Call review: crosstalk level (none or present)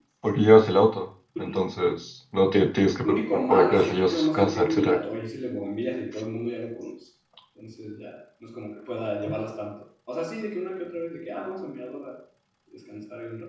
present